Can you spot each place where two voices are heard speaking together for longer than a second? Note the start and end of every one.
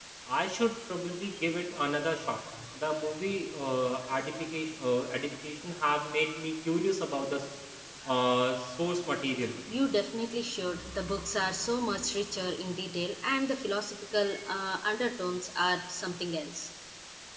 none

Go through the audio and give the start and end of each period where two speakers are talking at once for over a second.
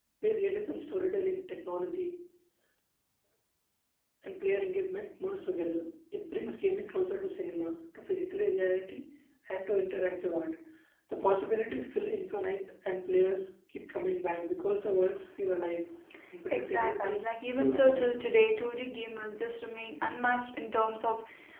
16.5-18.1

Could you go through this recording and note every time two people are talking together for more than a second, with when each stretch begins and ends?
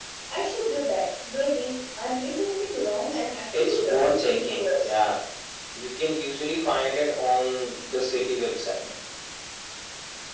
3.5-5.0

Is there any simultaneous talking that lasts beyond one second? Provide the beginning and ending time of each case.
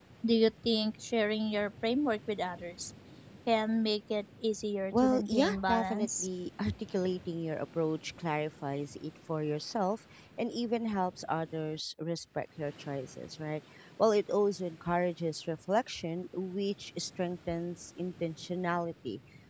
4.9-6.3

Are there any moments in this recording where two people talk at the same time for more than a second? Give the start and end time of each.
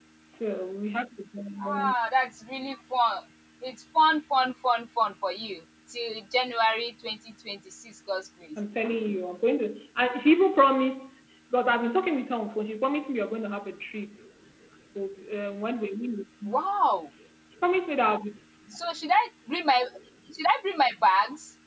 none

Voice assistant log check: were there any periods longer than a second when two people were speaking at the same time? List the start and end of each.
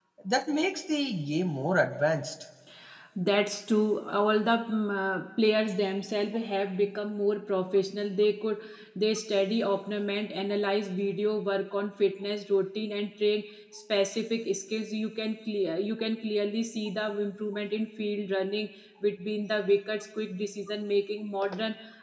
none

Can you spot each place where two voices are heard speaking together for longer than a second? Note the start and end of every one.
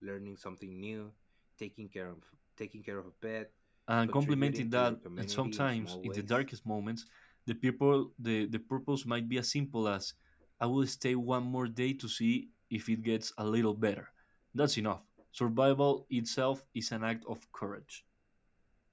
4.1-6.4

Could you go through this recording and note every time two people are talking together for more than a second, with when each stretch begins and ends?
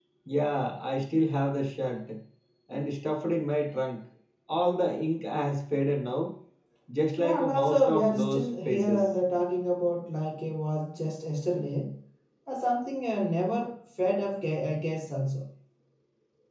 7.2-9.1

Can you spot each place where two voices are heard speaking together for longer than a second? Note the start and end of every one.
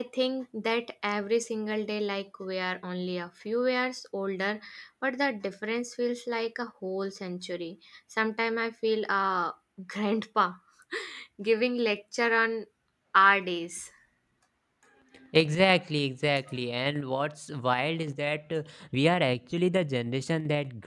none

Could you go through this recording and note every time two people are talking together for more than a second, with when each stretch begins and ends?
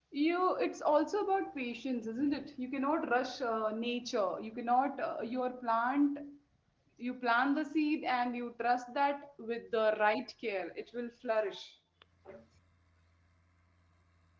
none

